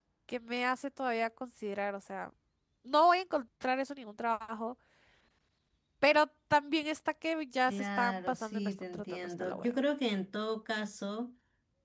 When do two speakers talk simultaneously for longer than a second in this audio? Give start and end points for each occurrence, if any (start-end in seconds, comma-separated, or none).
7.7-9.8